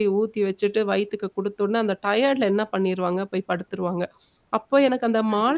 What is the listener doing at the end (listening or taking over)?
listening